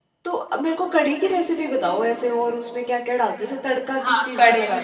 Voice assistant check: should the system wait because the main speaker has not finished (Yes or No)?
No